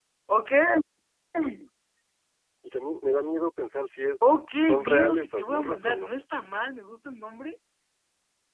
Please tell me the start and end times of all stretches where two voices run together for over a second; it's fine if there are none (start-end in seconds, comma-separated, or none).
4.7-6.1